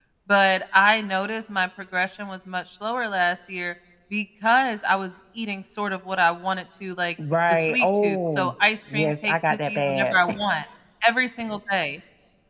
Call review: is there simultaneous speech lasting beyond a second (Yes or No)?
Yes